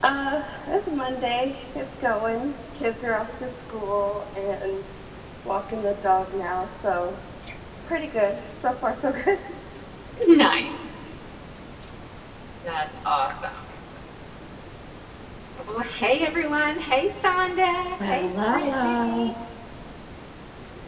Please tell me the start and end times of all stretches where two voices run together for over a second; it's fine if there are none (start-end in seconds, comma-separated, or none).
18.0-19.3